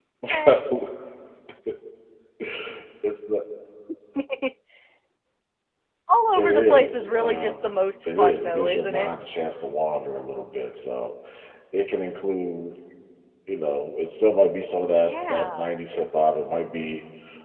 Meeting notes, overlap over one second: present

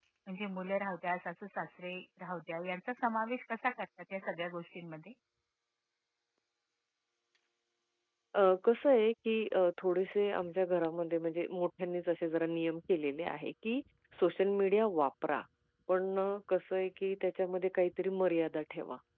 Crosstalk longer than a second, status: none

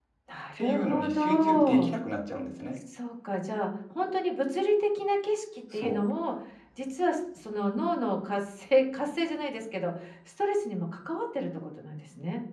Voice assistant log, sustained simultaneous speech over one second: present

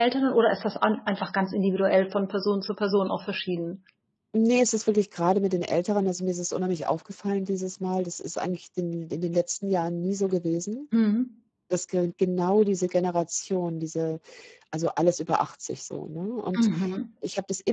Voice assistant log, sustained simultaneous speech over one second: none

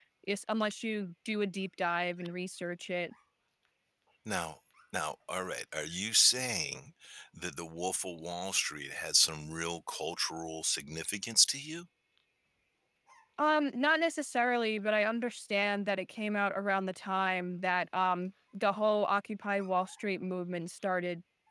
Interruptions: none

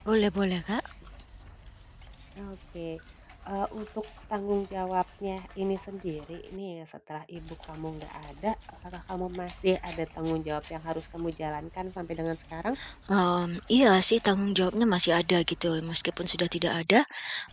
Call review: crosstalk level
none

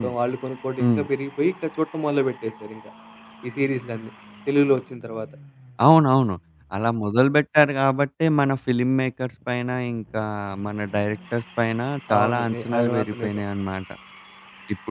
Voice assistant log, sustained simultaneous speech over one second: present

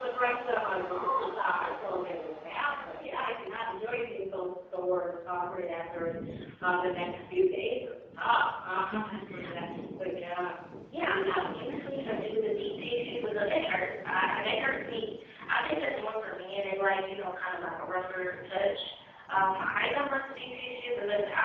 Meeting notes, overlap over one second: present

